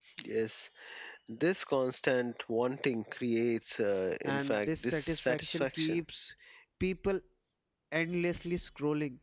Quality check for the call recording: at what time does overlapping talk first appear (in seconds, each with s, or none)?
4.2 s